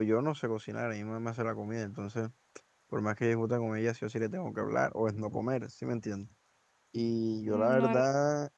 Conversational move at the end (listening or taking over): listening